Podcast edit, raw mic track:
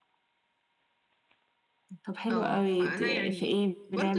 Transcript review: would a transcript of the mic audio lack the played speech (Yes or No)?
No